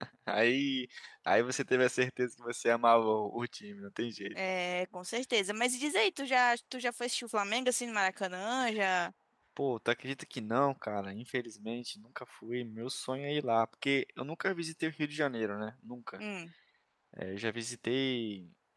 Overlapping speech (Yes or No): No